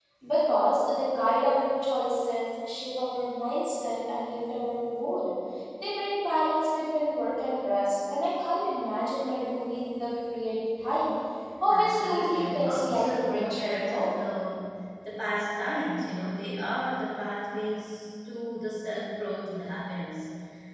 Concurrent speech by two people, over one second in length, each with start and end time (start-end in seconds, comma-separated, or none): 11.7-14.1